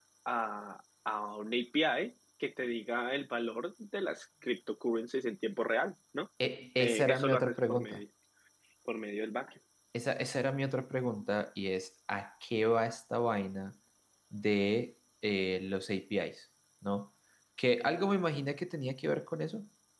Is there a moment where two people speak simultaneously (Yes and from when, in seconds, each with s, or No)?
Yes, from 6.8 s